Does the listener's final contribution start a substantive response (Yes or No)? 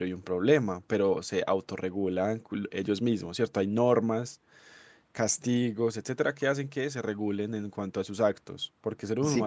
Yes